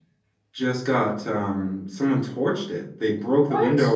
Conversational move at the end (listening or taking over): listening